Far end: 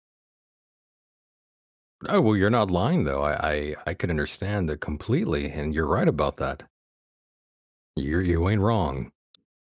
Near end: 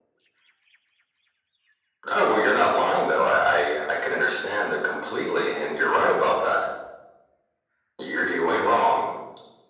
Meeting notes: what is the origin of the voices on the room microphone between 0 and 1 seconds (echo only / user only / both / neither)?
neither